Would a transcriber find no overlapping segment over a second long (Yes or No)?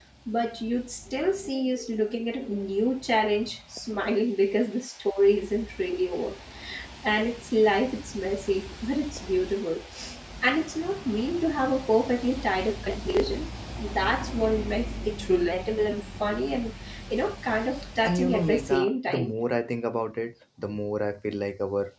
No